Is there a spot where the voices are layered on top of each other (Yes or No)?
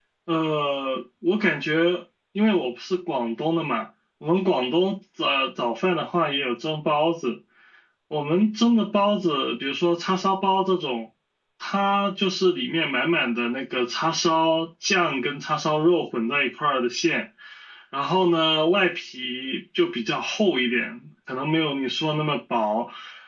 No